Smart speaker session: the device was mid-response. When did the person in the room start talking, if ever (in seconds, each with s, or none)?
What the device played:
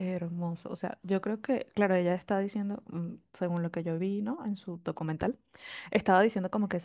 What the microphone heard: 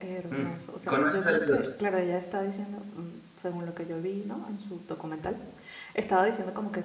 0.3 s